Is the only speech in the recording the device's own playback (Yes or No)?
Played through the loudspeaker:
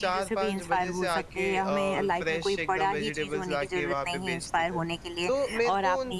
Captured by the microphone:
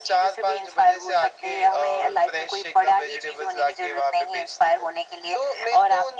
Yes